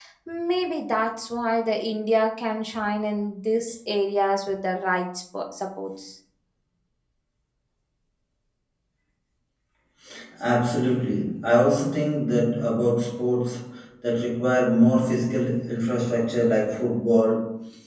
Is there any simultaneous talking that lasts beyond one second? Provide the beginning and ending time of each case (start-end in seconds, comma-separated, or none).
none